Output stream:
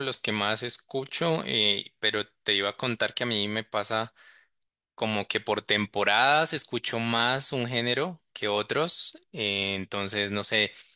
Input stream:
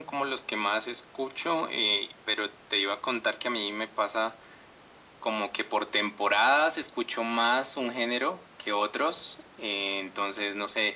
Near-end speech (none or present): none